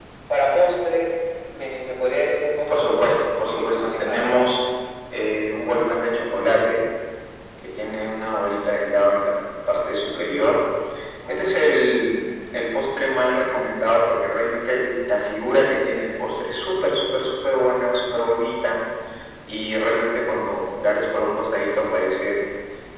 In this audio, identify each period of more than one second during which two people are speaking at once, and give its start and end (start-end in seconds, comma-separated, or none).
2.7-4.5